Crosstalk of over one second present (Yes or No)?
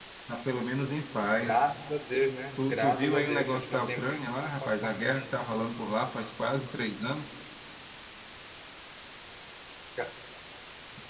Yes